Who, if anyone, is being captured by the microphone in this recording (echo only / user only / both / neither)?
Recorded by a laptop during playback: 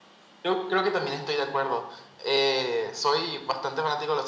echo only